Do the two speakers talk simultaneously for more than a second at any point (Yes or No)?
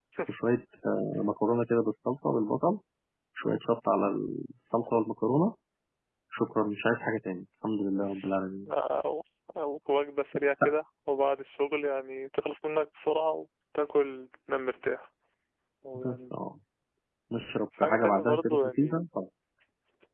Yes